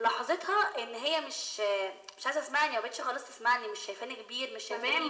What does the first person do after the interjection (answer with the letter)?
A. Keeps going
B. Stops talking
B